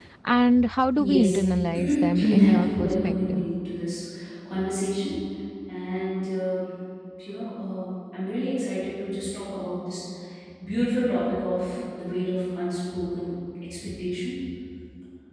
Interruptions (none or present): present